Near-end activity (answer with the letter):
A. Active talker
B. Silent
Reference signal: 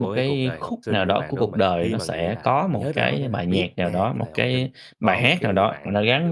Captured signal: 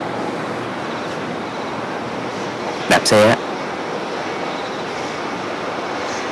A